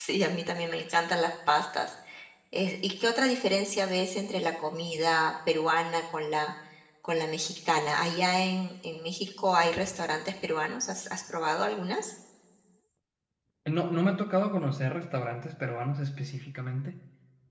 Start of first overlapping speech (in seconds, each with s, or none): none